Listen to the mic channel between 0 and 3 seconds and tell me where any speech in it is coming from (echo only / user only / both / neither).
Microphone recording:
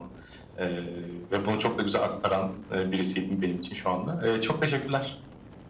echo only